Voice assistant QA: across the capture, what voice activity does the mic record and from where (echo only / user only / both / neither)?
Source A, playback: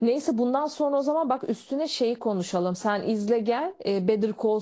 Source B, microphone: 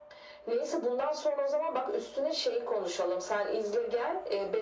echo only